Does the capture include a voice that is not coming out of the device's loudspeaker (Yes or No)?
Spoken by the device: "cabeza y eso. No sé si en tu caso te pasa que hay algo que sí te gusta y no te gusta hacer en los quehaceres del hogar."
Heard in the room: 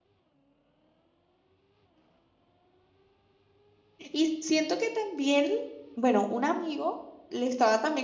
Yes